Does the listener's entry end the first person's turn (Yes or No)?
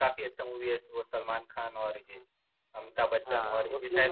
Yes